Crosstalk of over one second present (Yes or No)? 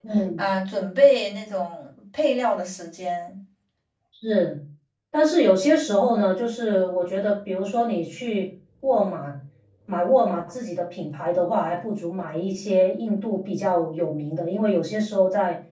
No